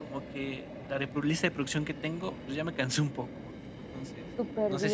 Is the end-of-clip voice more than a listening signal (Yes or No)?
No